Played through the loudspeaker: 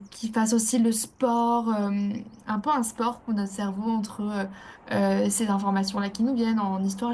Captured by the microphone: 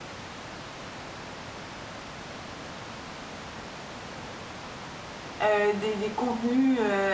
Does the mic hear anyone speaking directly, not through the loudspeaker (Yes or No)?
Yes